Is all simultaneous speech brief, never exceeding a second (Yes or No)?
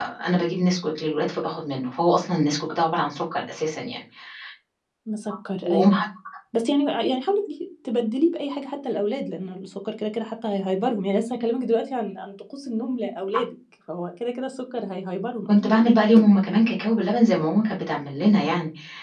Yes